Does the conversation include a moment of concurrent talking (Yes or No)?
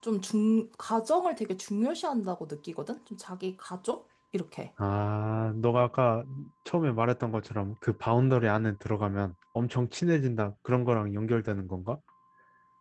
No